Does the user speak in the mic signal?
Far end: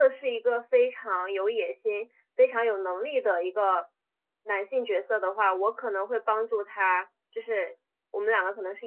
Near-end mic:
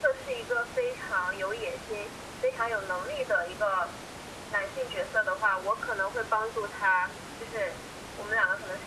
No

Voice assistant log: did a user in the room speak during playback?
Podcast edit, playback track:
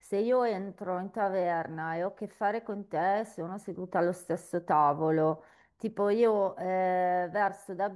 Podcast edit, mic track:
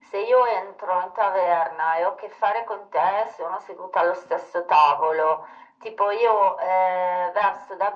No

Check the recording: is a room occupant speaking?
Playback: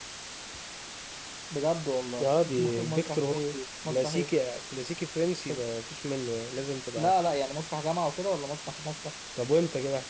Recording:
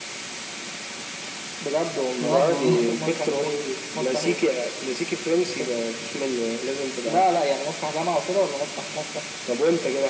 Yes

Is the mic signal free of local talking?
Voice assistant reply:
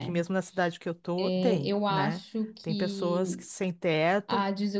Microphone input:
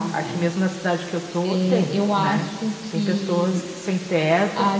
Yes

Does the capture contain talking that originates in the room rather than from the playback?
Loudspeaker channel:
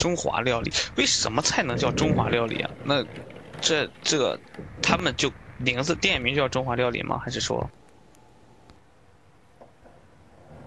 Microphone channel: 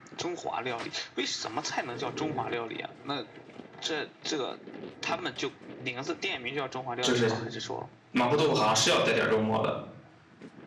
Yes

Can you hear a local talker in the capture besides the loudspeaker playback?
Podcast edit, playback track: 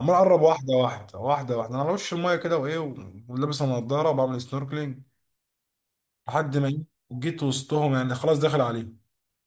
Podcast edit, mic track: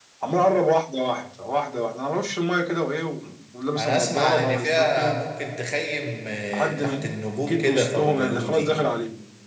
Yes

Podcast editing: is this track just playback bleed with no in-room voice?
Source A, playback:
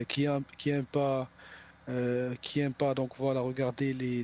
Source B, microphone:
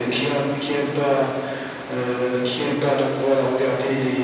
Yes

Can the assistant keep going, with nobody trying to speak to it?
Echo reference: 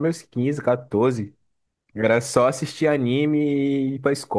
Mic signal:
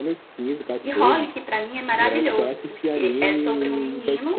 No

